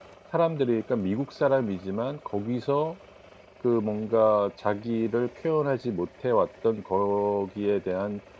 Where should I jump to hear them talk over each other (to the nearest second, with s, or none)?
none